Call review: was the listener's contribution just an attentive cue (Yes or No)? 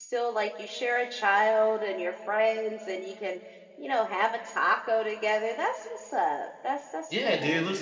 No